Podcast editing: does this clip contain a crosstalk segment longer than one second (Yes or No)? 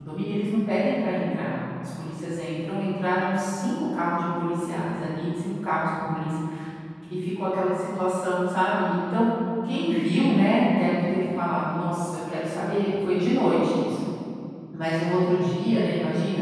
No